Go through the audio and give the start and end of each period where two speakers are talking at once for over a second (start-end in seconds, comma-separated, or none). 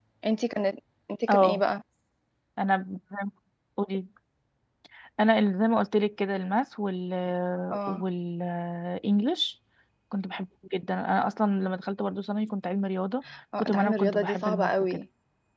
13.6-15.0